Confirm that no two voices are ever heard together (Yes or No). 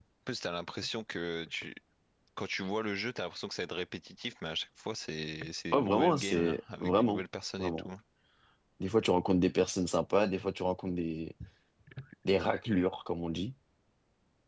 No